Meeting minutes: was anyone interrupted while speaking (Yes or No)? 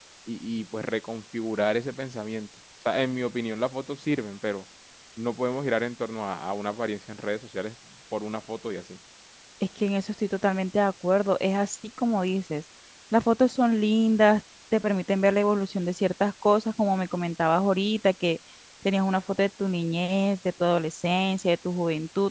No